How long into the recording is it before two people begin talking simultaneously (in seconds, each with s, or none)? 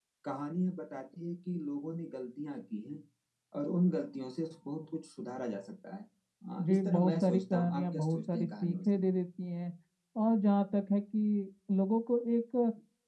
6.6 s